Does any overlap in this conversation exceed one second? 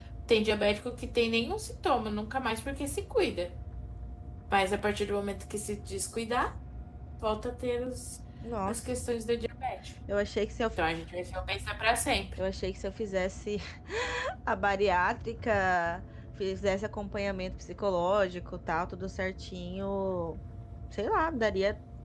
No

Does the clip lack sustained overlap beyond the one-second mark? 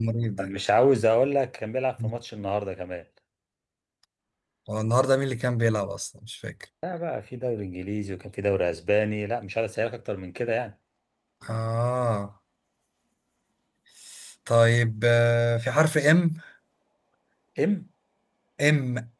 Yes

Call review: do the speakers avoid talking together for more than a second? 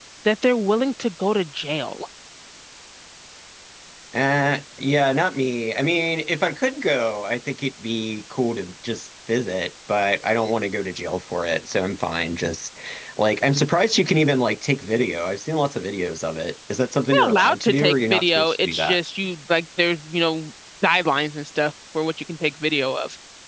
No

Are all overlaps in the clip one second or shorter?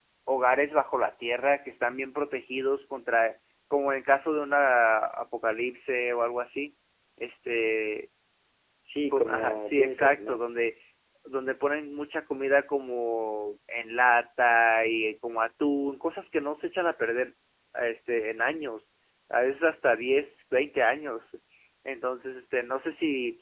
No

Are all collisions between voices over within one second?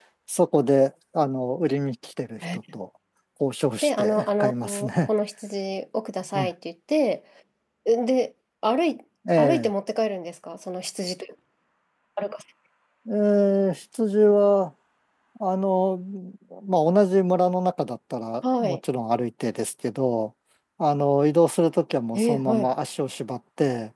No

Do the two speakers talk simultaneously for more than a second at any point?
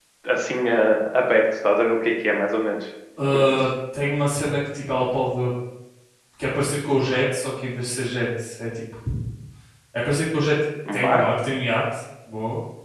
No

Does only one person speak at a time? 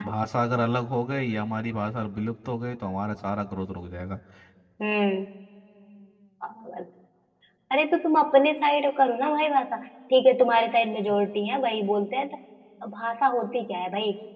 Yes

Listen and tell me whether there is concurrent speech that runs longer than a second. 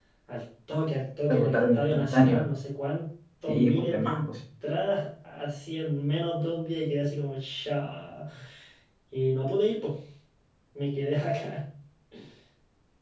Yes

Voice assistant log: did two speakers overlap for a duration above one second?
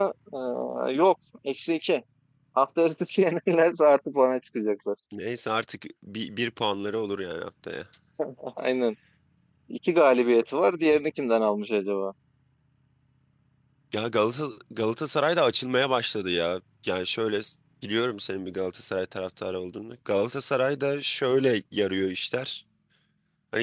No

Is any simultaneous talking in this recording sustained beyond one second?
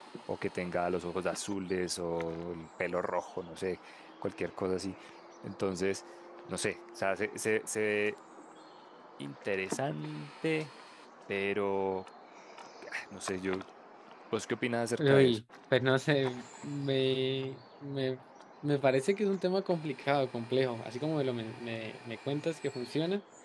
No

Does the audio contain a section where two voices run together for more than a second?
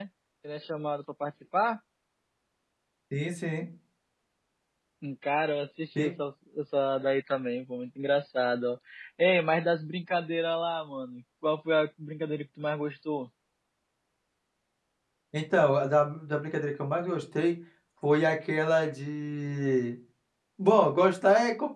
No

